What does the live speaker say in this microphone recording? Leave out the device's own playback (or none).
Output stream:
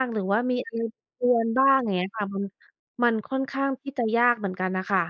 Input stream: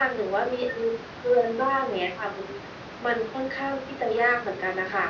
none